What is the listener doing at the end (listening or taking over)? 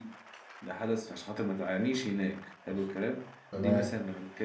listening